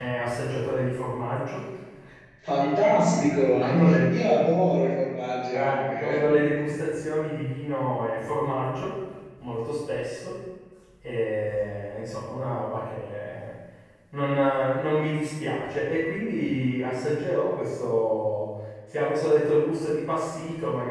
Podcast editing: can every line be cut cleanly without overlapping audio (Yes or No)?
No